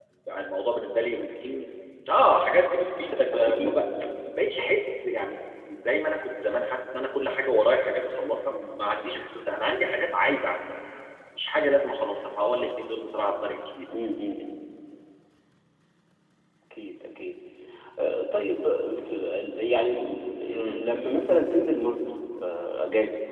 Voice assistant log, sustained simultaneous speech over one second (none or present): none